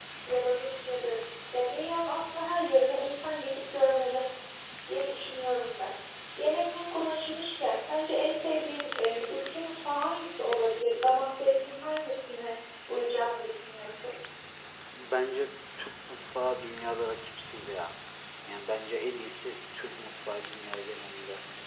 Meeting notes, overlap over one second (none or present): none